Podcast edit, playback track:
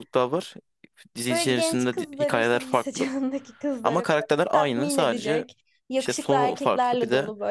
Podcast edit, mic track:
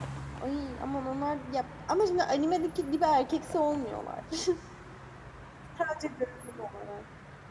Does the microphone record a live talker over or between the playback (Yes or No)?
Yes